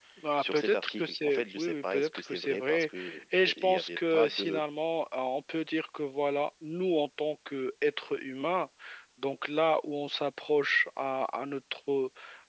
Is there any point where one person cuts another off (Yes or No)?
Yes